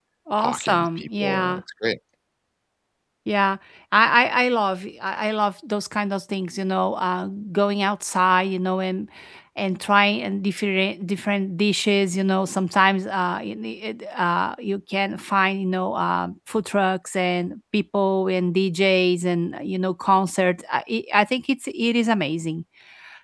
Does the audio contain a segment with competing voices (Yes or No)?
Yes